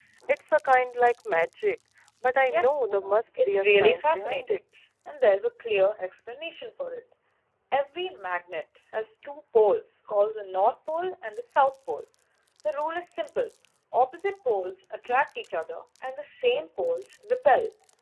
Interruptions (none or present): present